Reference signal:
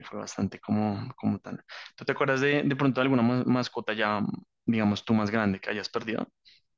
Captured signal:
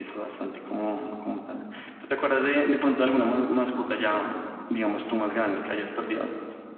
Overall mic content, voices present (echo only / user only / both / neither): echo only